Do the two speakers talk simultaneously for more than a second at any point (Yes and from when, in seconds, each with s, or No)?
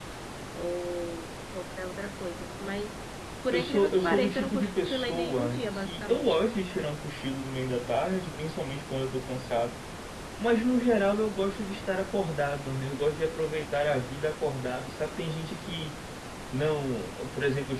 Yes, from 3.5 s